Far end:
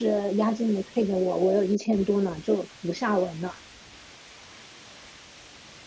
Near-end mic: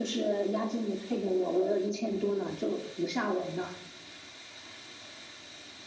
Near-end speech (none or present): none